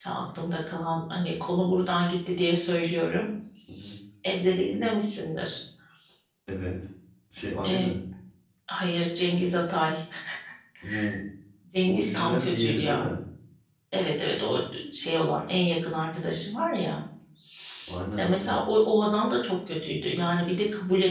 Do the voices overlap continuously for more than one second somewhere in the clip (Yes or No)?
Yes